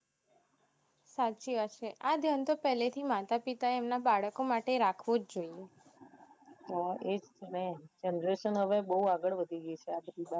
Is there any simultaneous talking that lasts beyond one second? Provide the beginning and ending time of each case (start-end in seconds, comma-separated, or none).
none